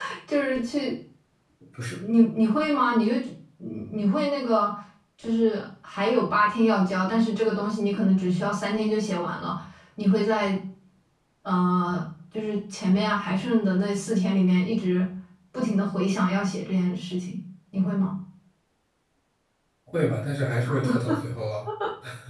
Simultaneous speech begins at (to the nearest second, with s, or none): none